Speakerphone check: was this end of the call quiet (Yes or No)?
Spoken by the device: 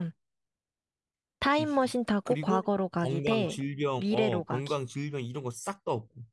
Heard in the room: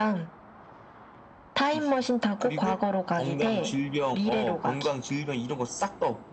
Yes